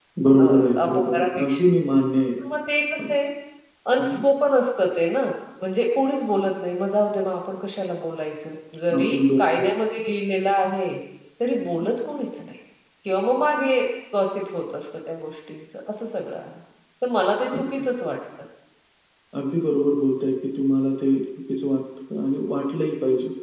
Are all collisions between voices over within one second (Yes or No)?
No